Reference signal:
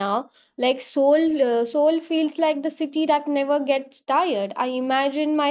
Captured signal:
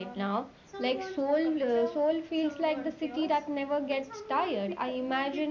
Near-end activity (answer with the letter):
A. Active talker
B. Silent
A